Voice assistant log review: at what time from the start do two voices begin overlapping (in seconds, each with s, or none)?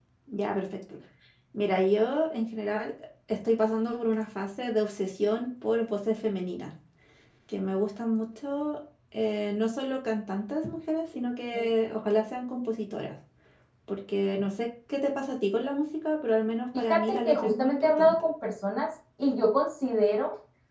16.7 s